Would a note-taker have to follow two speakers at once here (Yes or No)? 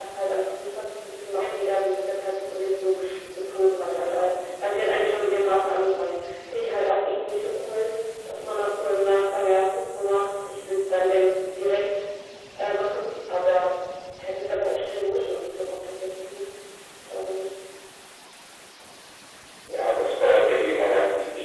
No